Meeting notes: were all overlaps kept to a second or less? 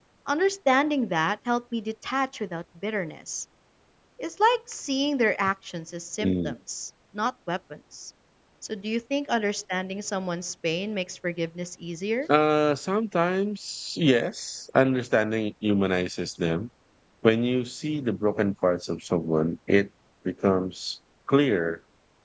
Yes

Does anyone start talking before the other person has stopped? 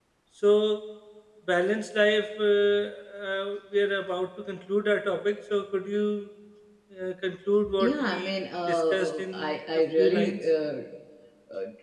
Yes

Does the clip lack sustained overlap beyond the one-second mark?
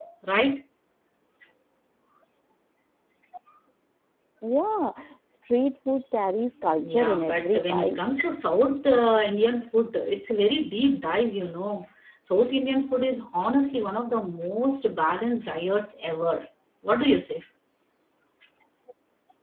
No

